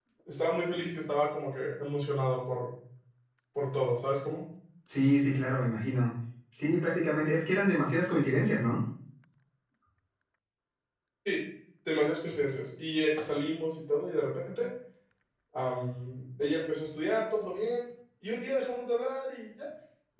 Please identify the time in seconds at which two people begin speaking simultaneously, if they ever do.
none

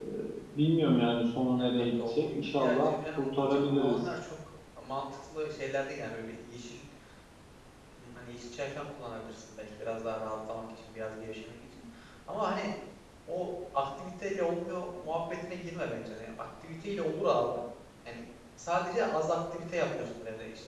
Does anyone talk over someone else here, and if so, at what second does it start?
1.6 s

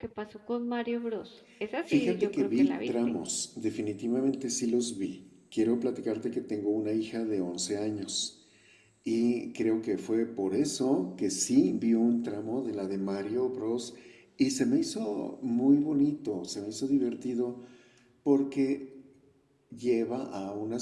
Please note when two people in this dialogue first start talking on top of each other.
1.9 s

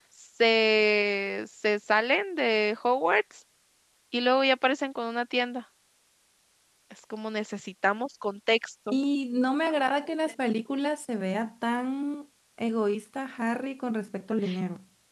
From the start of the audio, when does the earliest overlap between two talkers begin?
none

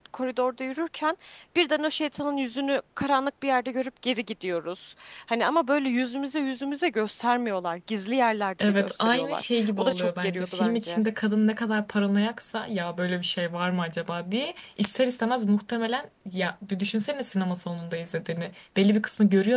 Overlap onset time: 8.6 s

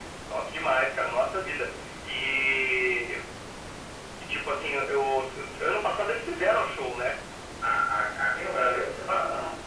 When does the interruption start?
none

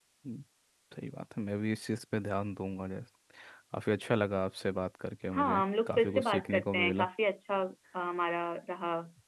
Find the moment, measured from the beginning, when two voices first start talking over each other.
5.3 s

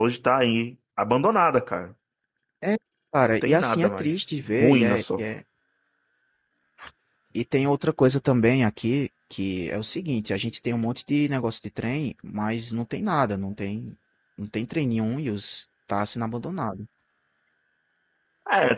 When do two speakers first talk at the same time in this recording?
3.4 s

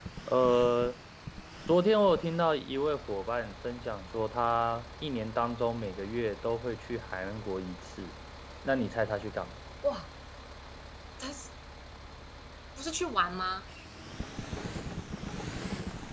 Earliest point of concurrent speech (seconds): none

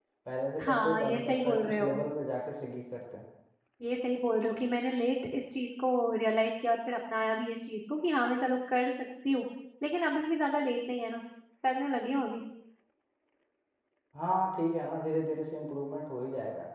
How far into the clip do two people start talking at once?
0.7 s

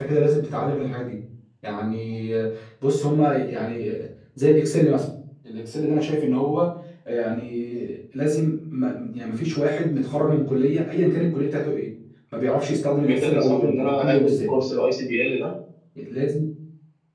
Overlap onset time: 13.0 s

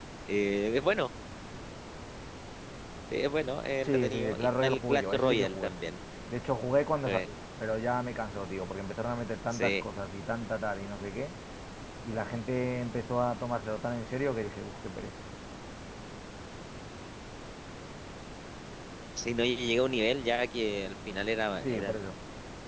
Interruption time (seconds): 3.8 s

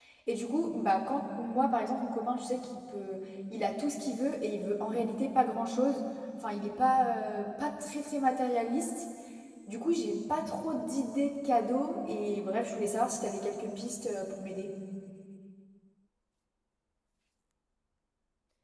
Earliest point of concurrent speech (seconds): none

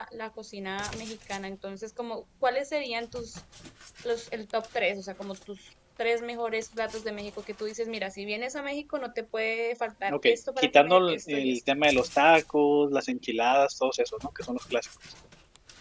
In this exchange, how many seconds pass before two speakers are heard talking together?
10.1 s

